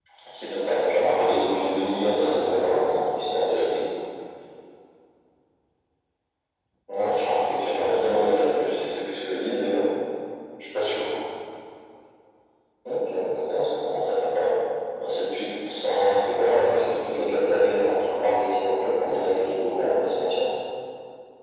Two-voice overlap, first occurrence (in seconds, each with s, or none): 1.1 s